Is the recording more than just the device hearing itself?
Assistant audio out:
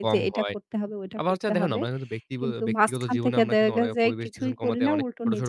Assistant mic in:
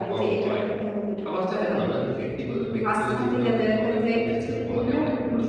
No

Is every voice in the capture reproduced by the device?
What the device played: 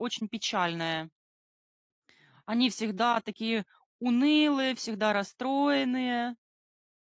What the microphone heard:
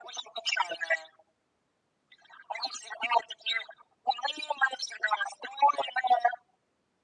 Yes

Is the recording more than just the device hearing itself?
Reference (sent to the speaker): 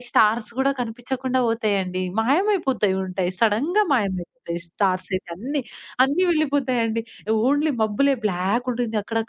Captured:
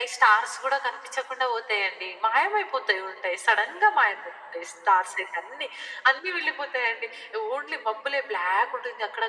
No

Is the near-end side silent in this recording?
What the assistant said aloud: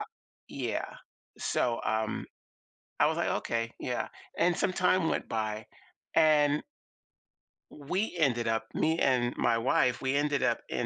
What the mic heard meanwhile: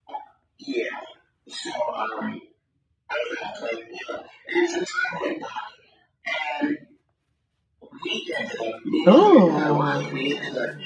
No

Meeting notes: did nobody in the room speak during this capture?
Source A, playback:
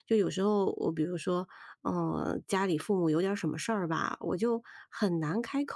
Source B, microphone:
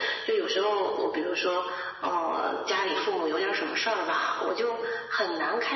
Yes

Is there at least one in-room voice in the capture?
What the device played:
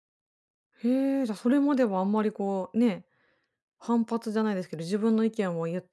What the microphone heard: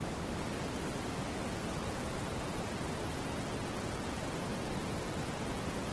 No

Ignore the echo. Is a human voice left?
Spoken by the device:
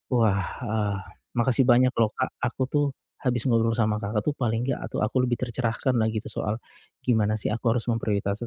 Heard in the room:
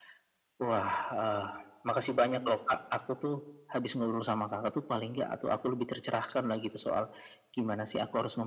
No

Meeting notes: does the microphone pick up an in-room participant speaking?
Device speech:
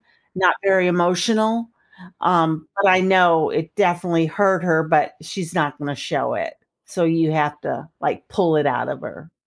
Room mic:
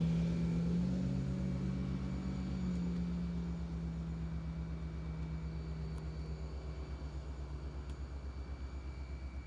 No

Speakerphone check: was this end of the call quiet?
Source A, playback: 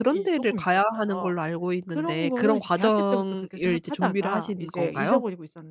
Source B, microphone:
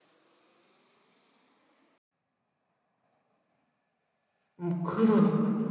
No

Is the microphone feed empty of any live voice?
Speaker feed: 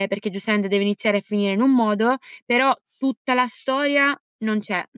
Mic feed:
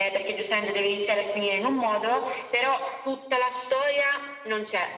Yes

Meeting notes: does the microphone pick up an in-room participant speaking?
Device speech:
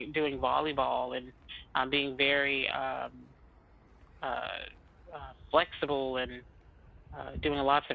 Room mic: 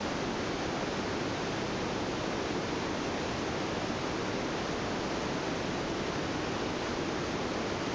No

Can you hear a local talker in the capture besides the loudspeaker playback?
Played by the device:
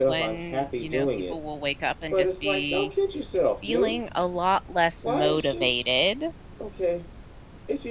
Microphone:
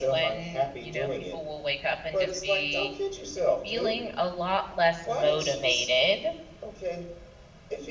No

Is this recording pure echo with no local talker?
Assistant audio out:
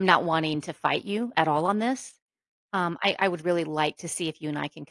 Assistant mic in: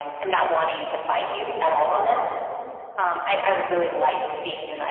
Yes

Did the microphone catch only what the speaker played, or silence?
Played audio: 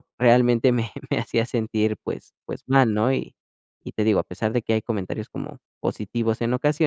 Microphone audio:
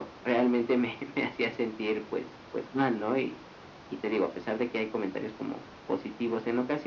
Yes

